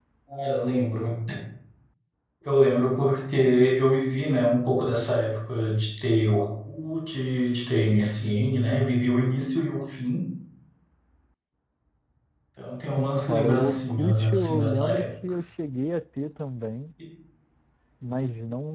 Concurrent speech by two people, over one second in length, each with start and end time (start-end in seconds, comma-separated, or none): 13.0-15.1